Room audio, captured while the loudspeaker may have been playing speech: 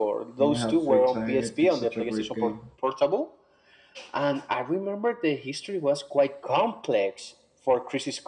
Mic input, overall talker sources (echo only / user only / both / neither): both